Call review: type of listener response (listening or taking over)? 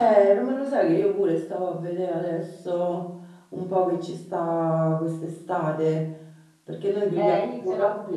taking over